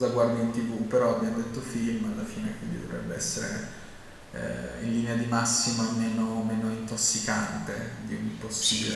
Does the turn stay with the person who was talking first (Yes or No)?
No